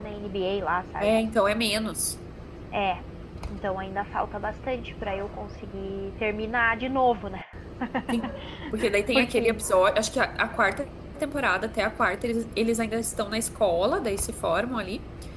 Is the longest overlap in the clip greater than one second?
No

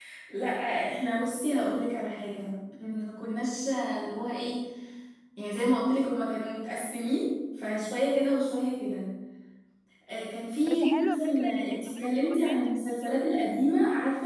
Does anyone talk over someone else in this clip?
Yes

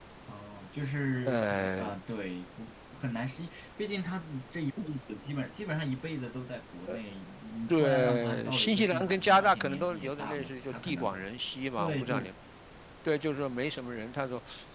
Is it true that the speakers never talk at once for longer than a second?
No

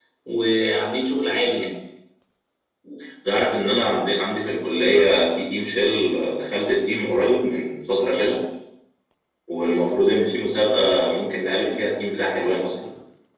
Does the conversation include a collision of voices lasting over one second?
No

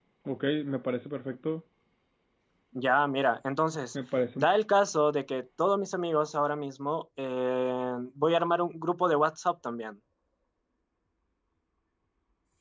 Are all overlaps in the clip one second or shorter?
Yes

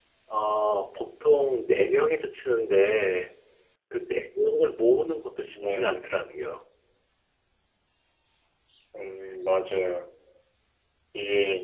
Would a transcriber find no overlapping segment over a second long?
Yes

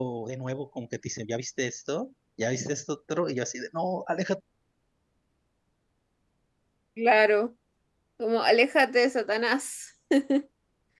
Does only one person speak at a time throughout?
Yes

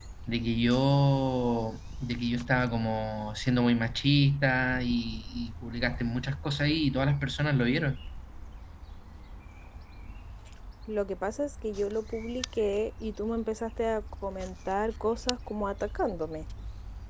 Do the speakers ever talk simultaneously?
No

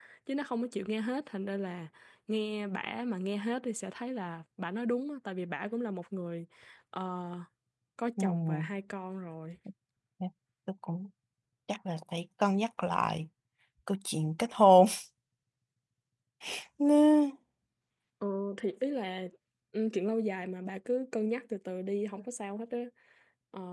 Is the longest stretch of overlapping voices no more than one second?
Yes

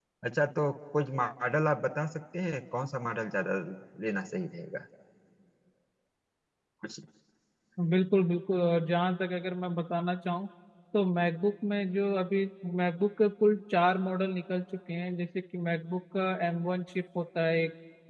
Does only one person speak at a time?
Yes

